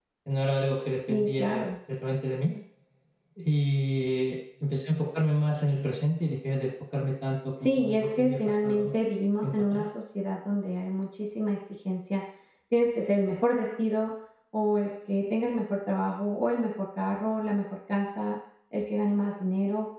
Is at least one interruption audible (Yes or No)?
Yes